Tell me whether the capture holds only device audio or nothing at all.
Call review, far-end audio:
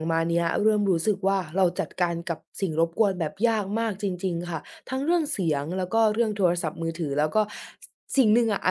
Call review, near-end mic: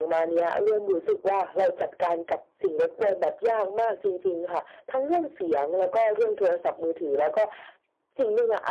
Yes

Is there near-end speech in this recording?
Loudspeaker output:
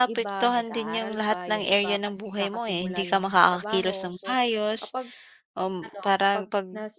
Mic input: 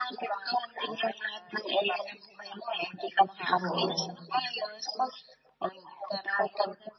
Yes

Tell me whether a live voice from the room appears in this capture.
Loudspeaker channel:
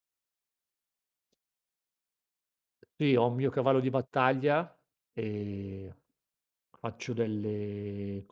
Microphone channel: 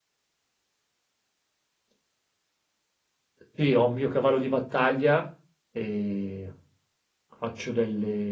No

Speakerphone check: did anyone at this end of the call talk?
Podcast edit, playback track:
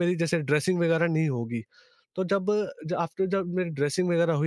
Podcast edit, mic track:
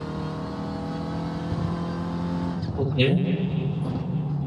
Yes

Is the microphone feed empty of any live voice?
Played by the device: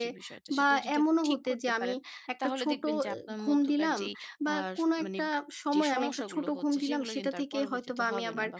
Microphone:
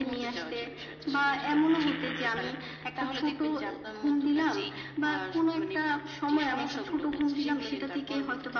Yes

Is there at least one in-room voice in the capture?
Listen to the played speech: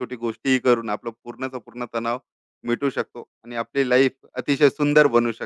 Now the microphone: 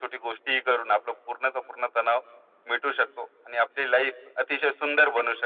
No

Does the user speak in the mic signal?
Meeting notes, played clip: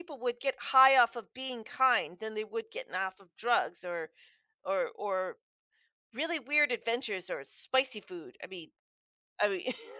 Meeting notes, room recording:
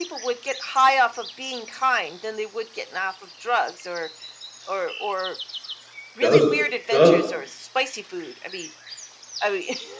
Yes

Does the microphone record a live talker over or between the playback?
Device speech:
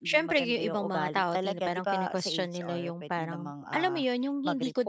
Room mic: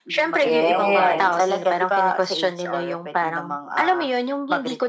Yes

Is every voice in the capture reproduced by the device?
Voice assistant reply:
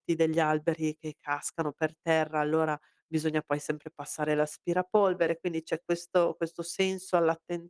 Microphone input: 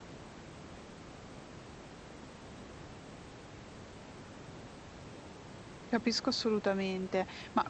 No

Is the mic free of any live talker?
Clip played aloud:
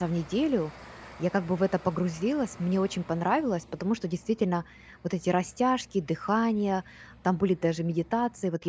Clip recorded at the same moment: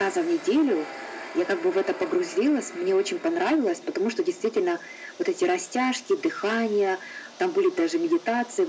Yes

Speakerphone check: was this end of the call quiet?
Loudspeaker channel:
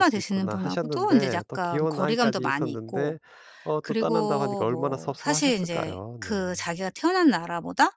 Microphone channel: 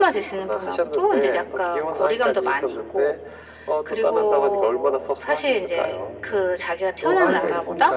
No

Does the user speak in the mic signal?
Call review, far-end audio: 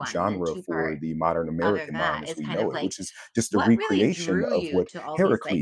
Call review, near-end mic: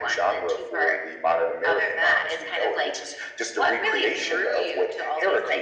No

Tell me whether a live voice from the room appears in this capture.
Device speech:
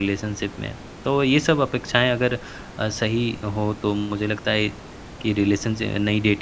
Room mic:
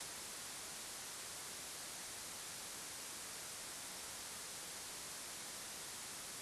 No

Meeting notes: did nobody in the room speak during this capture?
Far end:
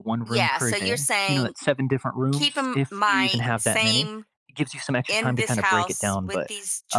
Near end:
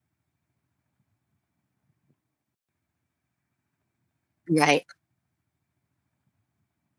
No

